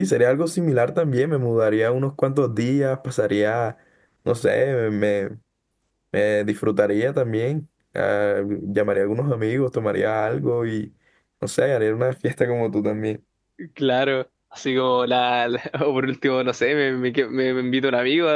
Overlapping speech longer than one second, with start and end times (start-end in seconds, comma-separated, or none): none